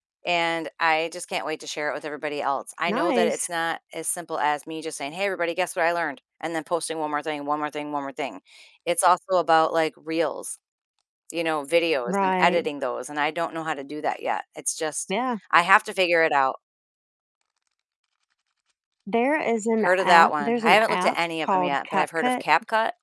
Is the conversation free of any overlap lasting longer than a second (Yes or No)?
No